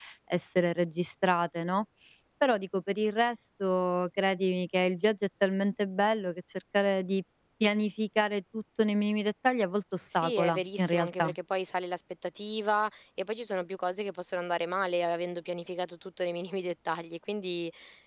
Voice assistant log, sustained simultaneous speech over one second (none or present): present